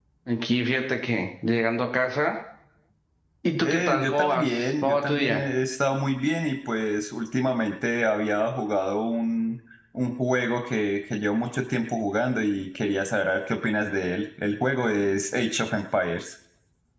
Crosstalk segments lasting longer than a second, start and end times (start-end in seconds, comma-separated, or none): 3.6-5.4